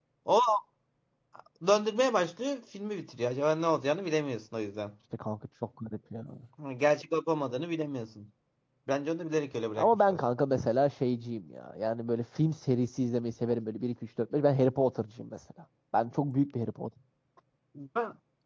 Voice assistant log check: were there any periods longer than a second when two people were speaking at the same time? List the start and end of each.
none

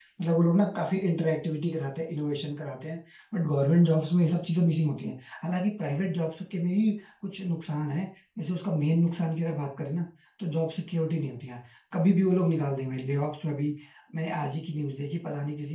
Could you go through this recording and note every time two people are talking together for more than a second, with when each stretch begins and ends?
none

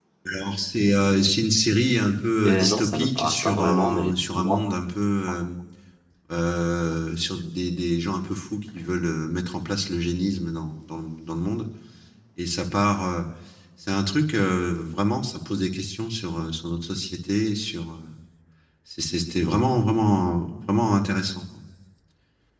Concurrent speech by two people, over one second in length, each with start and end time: 2.5-4.7

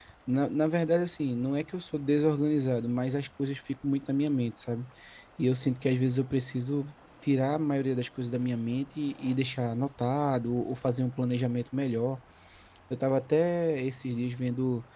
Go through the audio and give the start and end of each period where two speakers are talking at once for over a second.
none

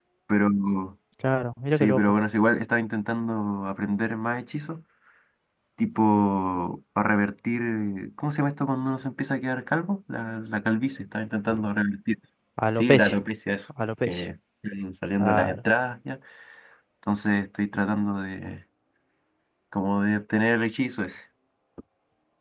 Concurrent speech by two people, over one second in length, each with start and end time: none

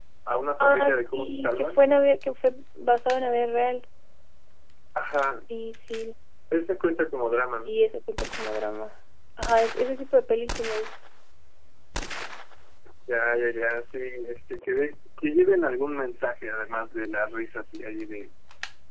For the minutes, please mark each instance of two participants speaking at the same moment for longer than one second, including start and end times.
0.6-1.8

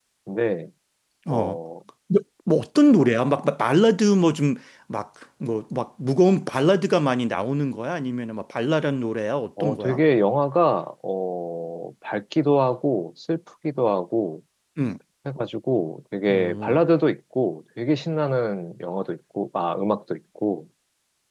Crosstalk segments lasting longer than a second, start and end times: none

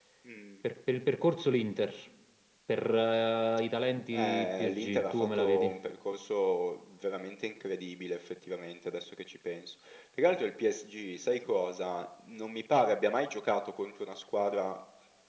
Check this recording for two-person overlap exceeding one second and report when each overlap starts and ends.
4.1-5.7

